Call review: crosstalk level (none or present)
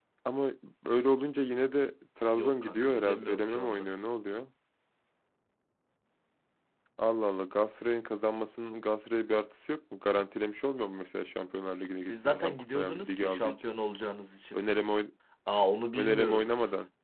present